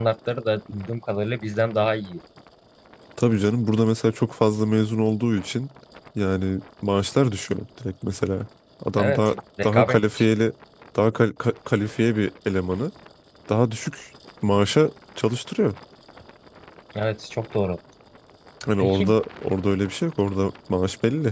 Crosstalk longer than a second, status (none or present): present